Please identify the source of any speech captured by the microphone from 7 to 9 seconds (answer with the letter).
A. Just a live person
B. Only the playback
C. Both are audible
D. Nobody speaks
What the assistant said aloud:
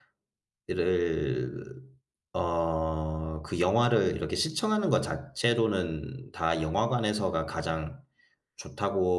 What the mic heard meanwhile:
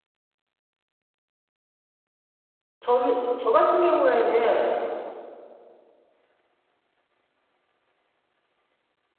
D